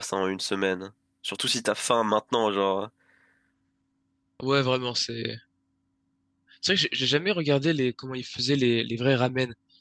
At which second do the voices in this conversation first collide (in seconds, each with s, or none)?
none